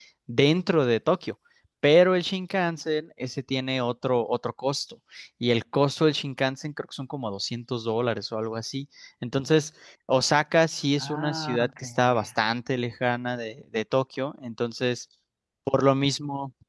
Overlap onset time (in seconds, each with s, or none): 11.0 s